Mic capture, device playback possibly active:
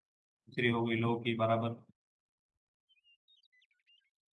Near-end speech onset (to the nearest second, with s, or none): 1 s